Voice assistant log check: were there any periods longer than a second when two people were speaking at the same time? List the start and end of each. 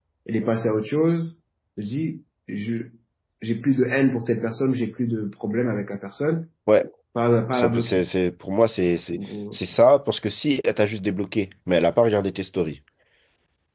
none

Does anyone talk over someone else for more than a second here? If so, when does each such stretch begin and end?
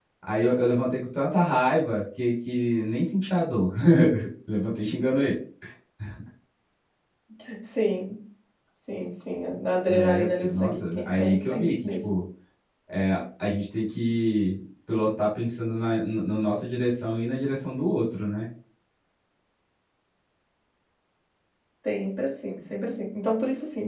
9.9-12.0

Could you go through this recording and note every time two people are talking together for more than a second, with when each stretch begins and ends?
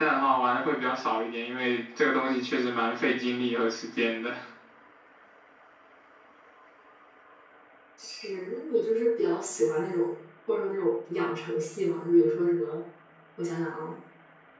none

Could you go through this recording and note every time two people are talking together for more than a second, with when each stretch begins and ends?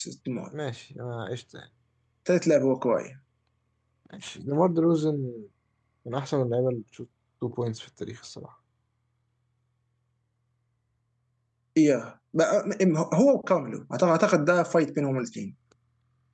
none

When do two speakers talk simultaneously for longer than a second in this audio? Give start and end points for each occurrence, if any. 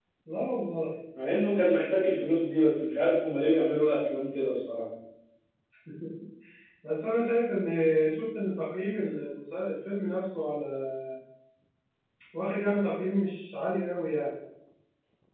none

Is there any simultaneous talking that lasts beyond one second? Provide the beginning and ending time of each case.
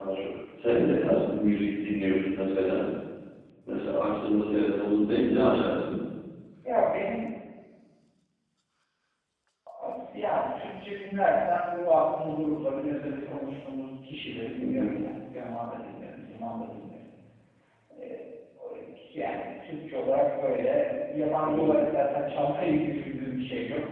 none

